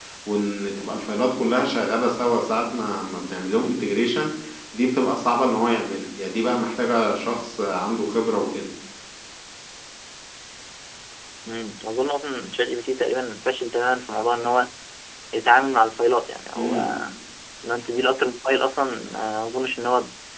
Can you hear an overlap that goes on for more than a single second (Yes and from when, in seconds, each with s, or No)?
No